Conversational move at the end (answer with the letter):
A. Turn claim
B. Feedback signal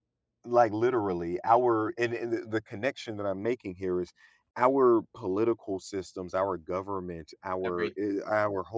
B